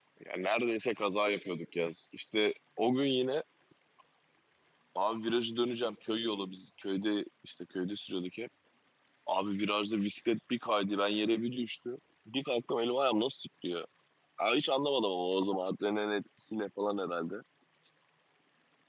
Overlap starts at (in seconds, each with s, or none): none